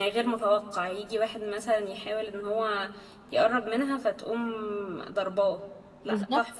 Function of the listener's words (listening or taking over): taking over